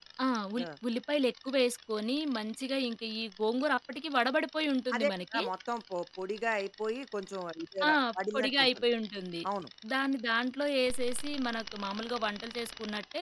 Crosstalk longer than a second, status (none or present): none